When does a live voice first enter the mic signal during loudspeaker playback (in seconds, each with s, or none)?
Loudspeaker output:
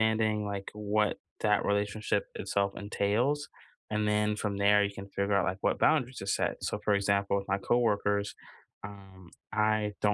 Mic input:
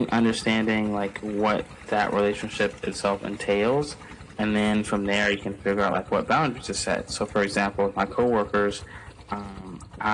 none